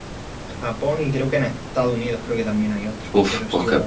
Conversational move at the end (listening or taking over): taking over